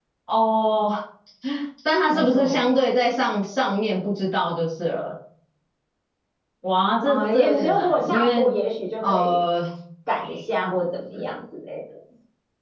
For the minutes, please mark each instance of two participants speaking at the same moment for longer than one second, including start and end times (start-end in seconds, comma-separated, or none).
7.0-8.5